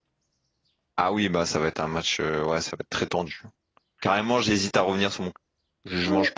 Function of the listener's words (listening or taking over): taking over